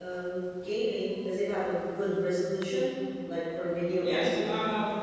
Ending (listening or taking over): taking over